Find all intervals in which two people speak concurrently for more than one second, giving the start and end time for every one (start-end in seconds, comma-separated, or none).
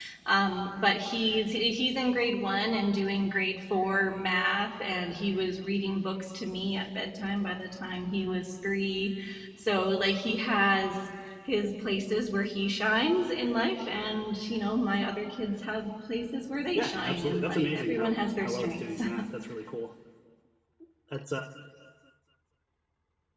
16.8-19.0